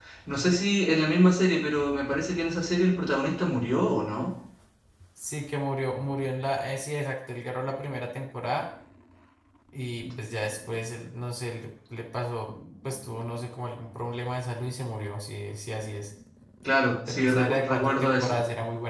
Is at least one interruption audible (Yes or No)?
Yes